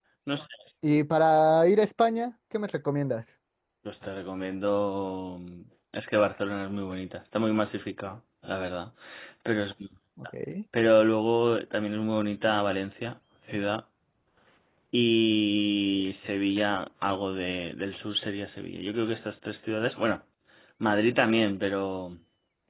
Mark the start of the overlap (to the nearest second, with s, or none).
none